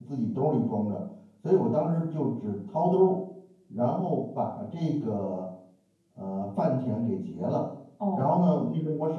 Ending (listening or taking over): listening